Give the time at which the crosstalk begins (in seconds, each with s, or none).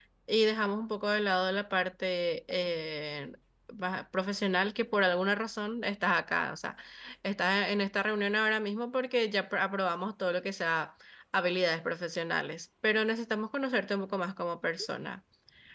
none